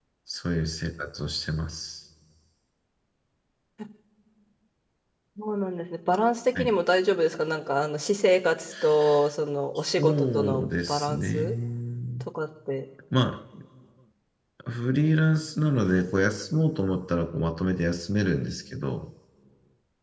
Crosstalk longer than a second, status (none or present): present